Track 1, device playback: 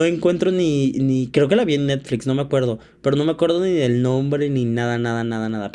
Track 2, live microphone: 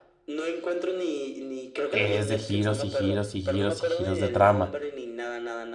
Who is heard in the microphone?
both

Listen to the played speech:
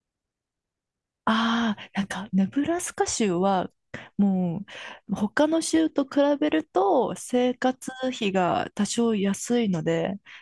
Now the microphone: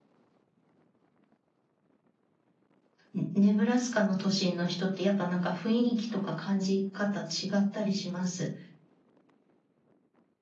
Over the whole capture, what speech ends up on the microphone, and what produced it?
user only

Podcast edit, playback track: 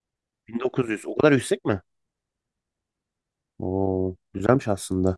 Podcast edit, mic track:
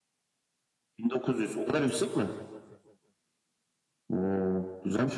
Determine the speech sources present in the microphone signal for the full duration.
echo only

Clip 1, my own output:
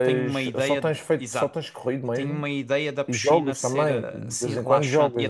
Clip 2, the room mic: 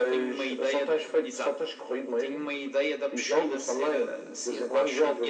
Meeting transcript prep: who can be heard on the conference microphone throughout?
echo only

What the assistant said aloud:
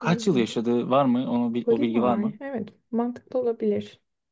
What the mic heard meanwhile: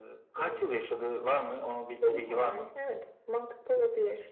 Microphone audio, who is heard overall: echo only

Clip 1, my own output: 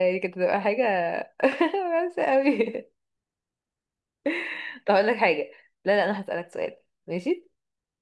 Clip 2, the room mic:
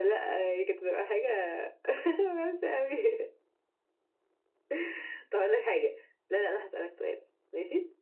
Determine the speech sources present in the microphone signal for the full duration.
echo only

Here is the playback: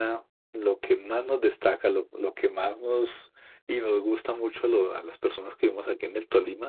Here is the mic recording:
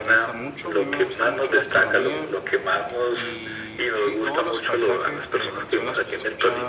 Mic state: both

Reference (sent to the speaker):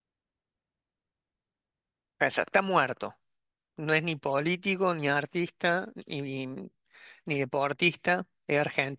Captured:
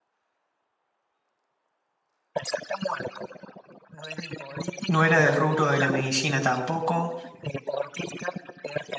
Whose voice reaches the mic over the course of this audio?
both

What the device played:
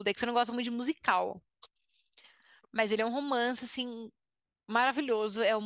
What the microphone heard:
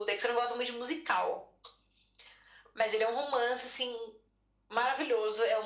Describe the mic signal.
echo only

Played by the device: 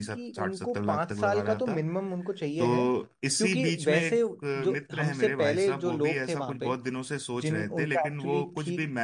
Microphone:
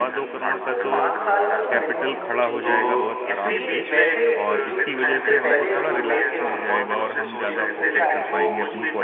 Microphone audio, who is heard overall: both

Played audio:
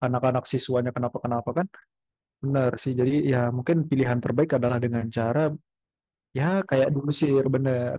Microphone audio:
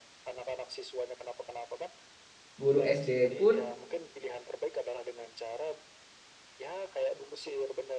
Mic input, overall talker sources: both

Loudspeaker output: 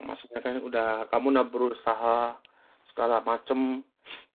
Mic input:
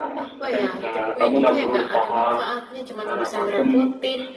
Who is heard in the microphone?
both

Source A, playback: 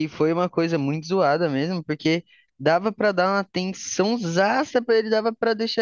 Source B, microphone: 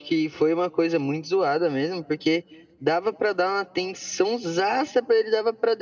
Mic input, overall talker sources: echo only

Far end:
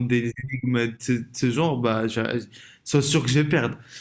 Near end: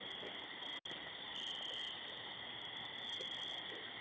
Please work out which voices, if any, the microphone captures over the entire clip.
neither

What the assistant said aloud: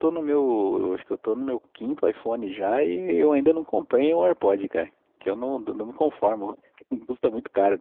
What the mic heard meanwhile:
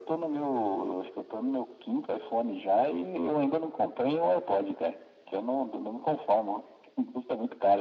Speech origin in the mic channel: echo only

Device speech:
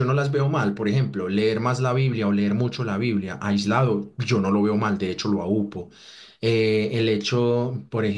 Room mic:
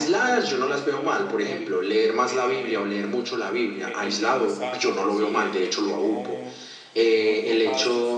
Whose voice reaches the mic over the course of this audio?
both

